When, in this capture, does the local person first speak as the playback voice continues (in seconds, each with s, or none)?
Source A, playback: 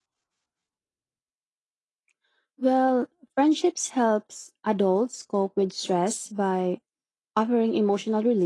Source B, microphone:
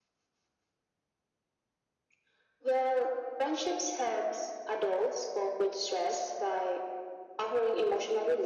none